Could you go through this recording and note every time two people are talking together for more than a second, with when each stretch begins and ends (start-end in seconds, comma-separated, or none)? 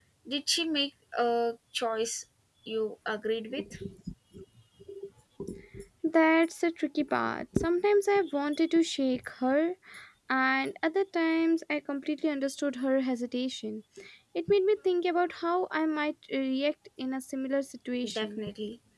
none